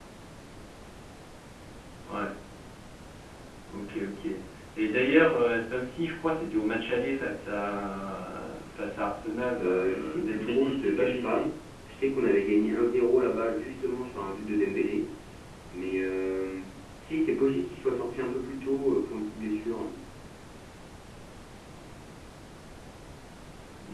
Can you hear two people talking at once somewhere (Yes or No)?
Yes